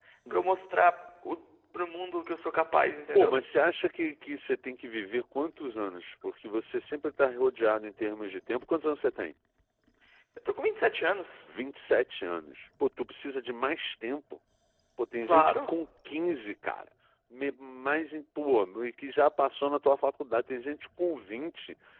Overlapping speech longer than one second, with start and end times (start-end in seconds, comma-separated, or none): none